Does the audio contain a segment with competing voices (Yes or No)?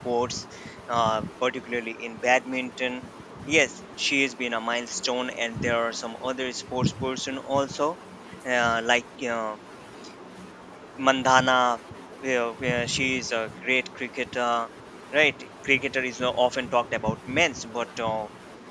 No